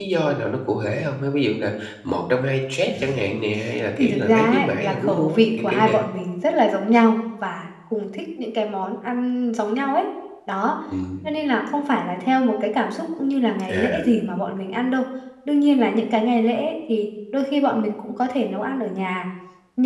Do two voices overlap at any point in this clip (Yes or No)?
Yes